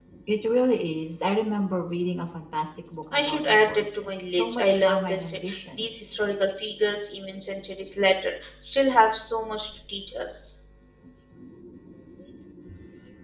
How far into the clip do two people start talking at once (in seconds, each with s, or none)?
3.1 s